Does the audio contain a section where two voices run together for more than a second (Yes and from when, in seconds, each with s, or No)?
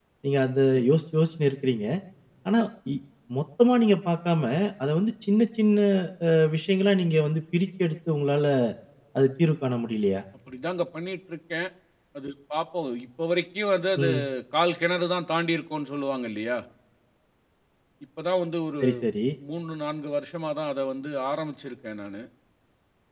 No